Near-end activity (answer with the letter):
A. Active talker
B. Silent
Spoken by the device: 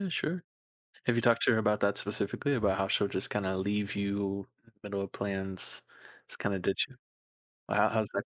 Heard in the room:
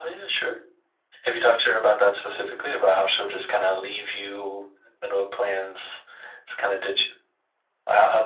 B